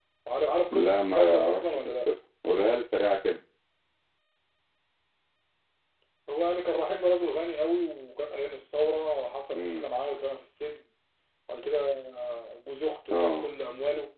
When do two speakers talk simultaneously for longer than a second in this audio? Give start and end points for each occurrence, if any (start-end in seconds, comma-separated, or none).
0.7-2.1